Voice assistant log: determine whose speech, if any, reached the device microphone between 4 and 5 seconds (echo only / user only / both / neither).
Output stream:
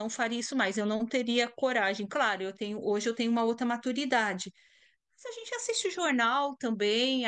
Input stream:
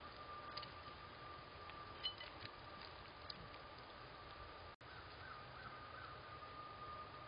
neither